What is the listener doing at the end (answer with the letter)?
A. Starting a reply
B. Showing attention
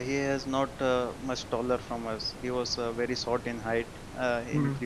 B